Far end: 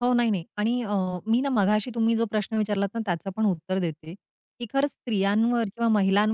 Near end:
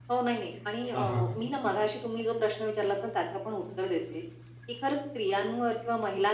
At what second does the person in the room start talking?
1 s

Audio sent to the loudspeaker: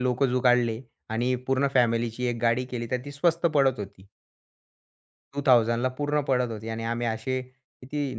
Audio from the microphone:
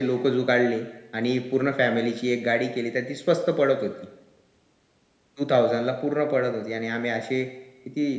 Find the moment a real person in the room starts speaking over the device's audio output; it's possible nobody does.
none

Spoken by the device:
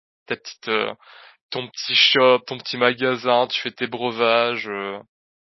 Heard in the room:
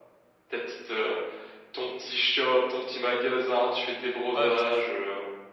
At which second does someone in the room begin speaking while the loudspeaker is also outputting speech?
4 s

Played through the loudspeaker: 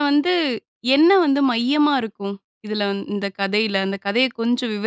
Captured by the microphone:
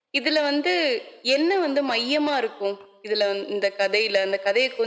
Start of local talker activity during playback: none

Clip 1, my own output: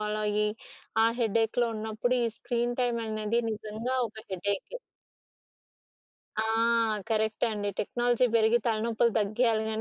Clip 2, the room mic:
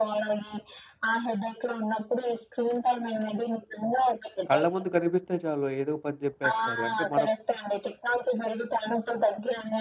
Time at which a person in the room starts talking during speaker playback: 4 s

